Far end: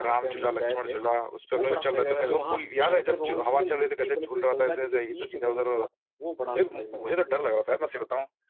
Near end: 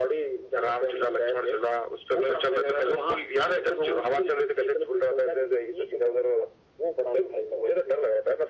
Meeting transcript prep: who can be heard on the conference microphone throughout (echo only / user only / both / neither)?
echo only